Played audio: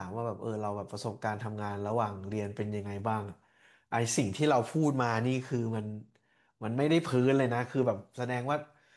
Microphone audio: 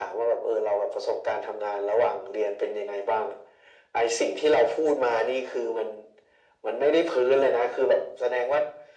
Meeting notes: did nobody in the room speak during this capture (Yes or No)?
Yes